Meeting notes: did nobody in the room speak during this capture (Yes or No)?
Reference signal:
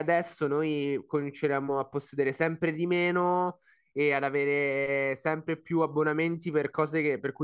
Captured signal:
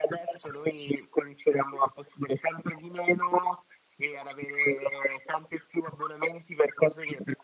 Yes